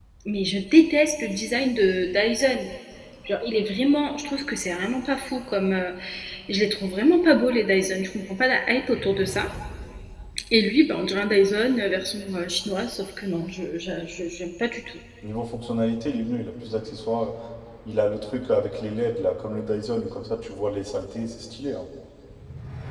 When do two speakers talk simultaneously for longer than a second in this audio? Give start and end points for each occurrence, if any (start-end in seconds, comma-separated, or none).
none